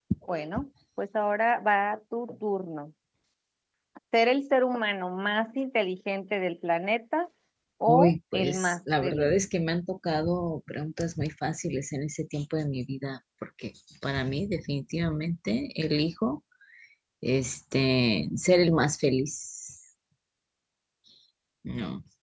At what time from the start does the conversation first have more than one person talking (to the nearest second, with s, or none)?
8 s